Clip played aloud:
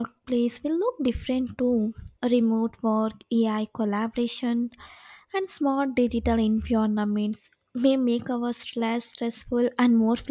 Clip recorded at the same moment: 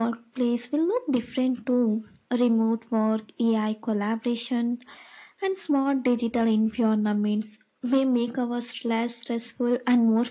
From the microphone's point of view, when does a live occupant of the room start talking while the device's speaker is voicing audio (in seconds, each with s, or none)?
none